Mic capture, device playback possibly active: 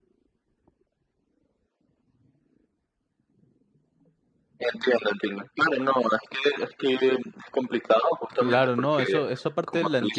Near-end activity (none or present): present